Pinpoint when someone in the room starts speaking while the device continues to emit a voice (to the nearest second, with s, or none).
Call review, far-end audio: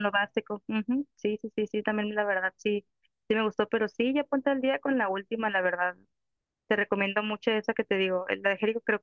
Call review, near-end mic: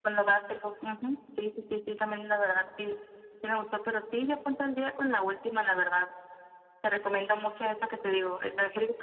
none